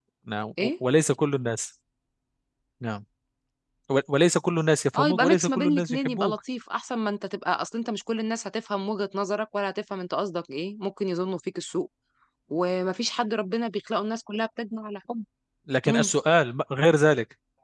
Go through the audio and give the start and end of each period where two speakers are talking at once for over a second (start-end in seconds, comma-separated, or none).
5.0-6.4